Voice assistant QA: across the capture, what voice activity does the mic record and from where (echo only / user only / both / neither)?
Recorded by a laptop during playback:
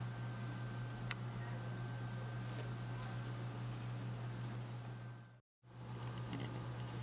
neither